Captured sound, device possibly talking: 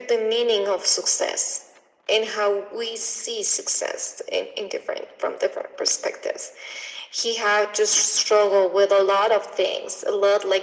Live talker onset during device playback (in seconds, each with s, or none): none